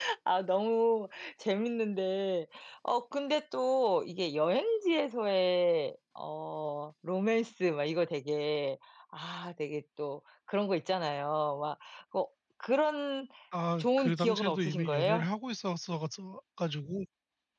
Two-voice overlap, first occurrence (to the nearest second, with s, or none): 14 s